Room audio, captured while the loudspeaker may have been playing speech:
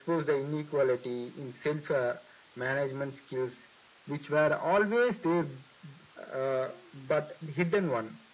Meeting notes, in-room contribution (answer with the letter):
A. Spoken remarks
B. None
B